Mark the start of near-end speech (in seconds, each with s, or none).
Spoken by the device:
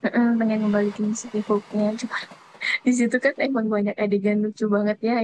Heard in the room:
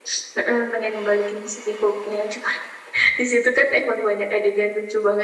none